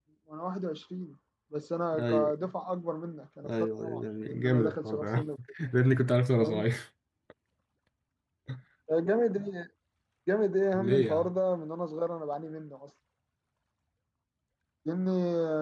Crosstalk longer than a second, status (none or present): present